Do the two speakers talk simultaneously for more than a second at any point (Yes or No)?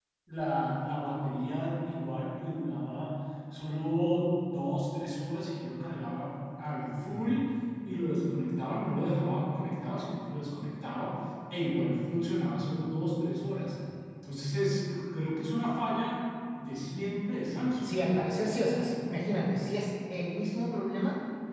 No